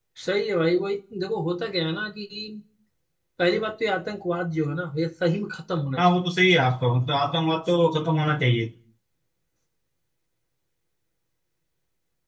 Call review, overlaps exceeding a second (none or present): none